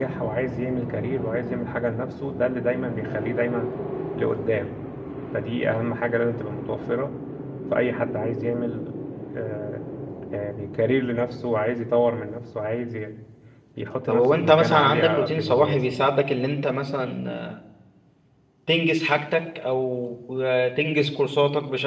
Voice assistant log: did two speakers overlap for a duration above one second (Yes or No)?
Yes